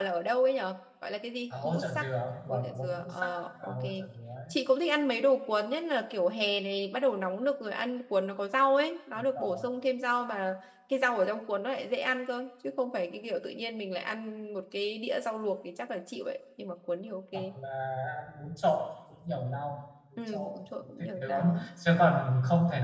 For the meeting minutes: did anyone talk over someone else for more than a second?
Yes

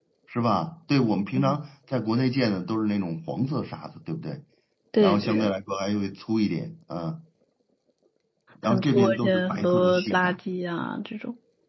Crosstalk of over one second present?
Yes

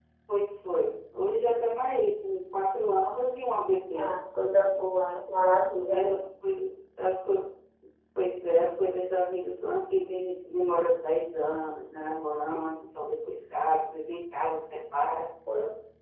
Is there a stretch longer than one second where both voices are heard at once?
No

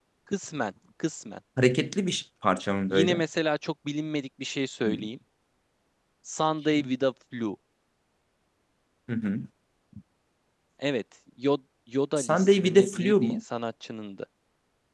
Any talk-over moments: Yes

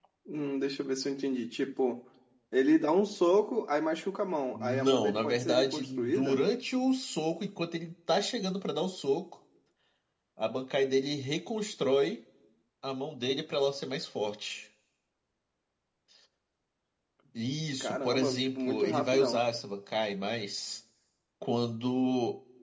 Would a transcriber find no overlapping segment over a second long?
No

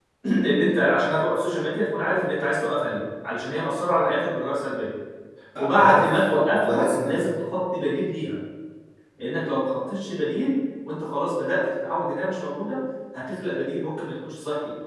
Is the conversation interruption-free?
No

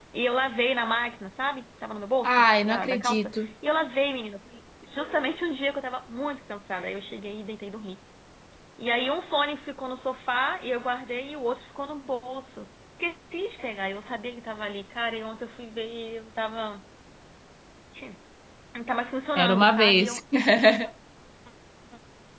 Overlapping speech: Yes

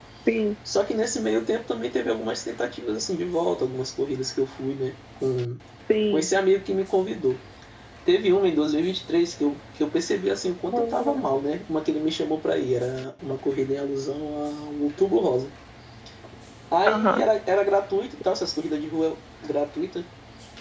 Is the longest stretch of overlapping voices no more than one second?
Yes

